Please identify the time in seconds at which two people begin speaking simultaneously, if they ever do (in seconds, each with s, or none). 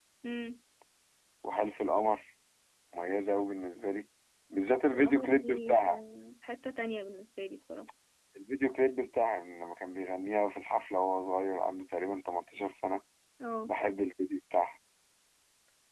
4.7 s